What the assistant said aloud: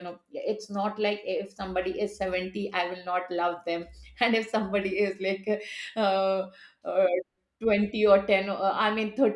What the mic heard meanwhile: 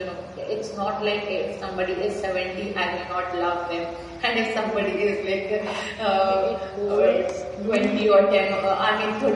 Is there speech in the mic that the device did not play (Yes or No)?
Yes